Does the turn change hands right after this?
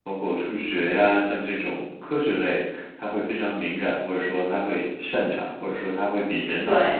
No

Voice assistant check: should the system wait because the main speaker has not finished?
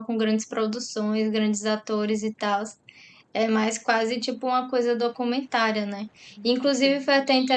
Yes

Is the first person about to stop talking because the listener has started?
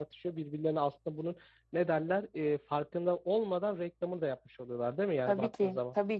Yes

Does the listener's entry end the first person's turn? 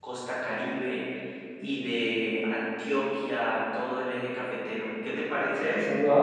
Yes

